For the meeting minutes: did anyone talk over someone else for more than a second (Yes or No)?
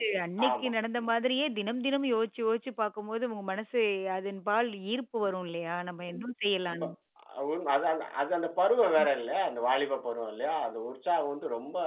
No